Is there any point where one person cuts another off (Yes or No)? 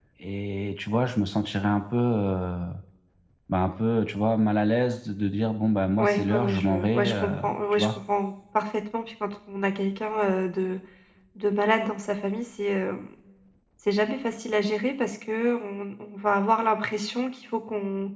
Yes